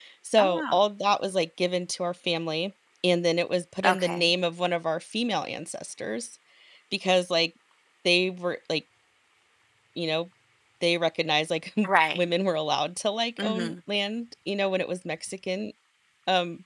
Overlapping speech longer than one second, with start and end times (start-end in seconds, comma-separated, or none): none